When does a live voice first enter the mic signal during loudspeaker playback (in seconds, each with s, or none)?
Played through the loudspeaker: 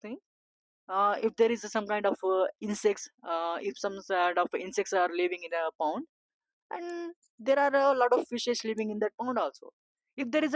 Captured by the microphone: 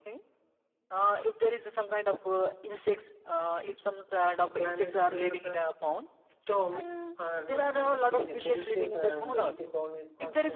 4.6 s